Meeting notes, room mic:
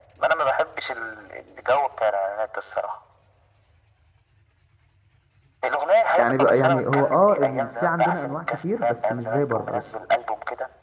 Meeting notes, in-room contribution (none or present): present